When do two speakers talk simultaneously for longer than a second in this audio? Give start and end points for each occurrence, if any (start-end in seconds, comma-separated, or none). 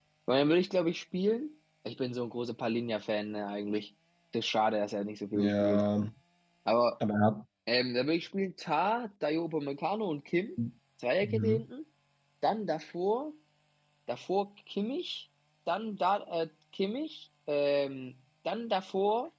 none